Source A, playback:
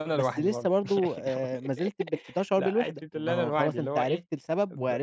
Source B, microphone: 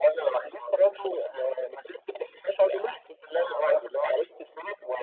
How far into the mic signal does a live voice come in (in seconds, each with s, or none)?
none